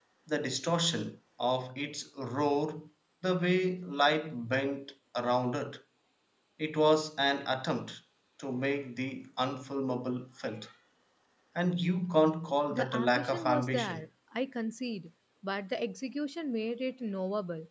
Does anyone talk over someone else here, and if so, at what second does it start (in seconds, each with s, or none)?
12.7 s